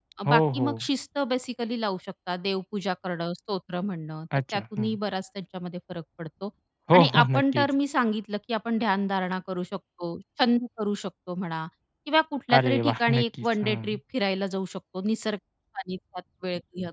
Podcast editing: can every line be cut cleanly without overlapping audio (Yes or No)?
No